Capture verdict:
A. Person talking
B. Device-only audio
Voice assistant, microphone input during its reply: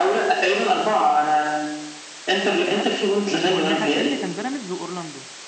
A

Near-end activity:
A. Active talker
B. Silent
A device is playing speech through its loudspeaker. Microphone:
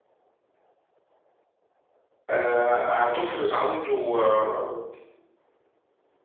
A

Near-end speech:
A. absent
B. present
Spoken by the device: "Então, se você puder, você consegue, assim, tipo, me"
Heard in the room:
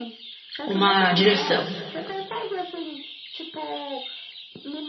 B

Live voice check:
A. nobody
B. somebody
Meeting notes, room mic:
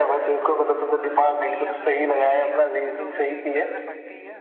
B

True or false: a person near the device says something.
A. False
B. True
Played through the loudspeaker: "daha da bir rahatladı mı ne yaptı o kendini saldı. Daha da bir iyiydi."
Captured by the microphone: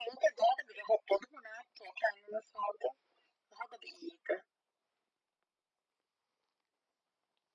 A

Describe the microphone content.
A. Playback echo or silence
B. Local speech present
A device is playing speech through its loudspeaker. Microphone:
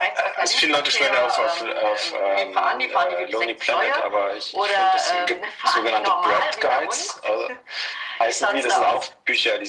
A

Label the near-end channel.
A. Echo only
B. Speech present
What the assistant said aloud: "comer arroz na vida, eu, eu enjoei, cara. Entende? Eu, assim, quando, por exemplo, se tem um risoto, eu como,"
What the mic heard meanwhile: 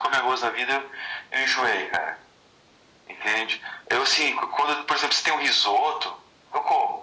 A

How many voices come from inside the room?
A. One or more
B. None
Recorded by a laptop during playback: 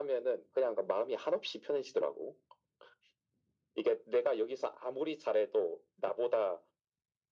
B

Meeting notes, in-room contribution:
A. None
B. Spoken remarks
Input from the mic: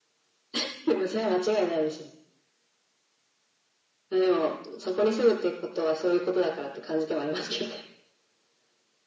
A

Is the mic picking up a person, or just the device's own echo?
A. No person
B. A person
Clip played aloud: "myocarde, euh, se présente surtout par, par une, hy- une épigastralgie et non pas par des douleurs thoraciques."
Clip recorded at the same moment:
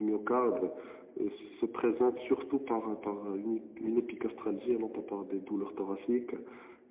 A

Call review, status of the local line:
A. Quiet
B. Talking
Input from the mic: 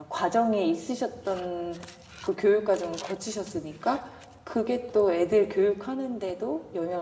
B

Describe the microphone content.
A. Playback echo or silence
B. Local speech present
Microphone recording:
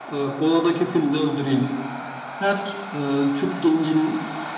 A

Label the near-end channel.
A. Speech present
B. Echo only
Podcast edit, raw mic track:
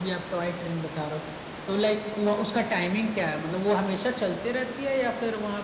B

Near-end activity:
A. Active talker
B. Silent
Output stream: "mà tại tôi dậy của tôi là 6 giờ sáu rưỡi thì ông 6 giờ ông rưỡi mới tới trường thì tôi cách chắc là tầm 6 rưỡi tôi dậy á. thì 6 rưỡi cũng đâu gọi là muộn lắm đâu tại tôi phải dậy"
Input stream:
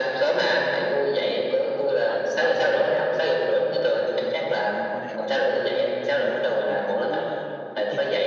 A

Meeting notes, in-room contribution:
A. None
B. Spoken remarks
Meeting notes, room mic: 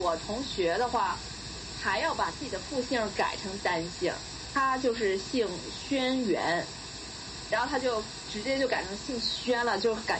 A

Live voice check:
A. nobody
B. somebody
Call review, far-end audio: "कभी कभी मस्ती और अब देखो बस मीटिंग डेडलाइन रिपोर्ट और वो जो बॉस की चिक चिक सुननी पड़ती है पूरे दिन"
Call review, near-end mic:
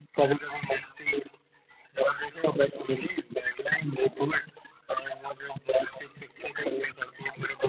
A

